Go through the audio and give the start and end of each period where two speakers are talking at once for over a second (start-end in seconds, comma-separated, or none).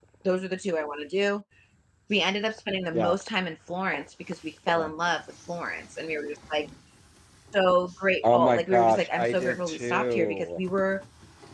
8.2-10.6